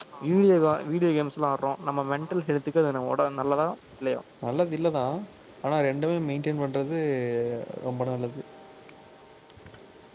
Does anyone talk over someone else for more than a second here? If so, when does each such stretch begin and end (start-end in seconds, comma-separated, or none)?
none